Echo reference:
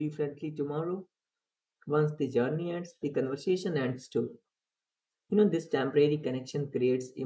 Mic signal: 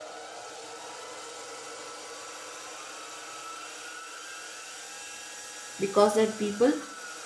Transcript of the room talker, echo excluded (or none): because that people